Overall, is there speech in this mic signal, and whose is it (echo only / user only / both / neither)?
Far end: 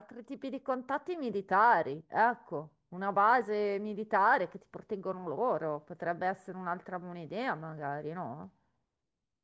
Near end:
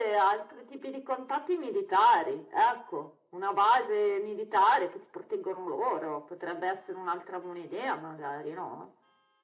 echo only